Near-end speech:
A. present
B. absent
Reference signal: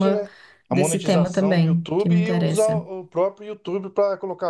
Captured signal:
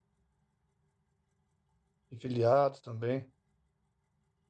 A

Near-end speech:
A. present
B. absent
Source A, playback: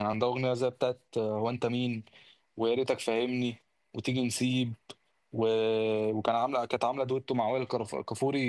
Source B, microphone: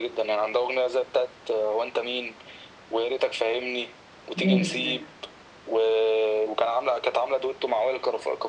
A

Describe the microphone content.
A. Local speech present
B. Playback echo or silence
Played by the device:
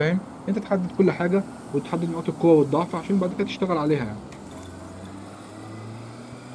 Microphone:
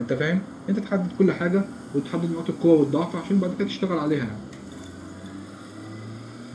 B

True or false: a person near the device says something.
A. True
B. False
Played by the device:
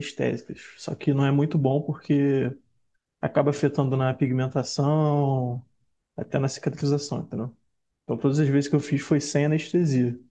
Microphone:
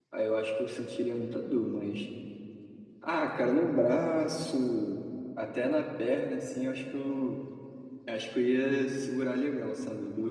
A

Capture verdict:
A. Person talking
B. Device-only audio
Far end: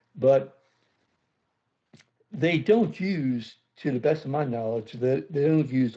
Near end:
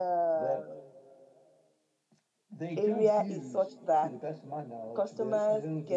A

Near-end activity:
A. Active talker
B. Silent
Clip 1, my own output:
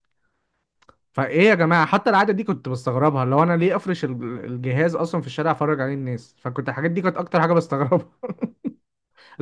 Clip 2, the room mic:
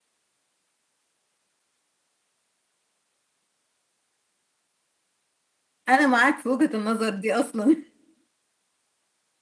A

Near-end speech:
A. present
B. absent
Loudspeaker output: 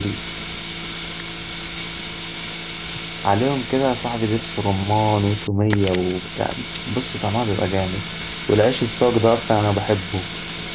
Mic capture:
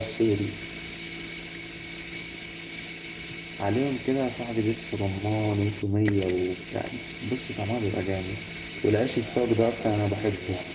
A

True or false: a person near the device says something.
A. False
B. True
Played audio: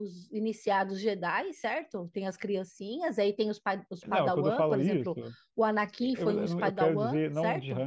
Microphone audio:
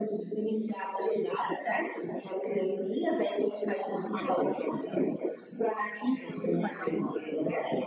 A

